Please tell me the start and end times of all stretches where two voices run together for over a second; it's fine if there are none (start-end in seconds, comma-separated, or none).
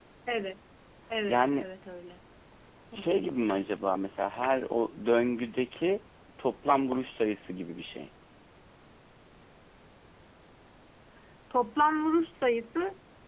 none